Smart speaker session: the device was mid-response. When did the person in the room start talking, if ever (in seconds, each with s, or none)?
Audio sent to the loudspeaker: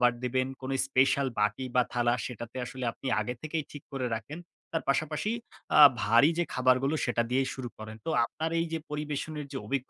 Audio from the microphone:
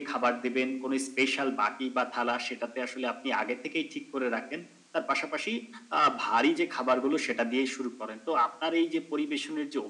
none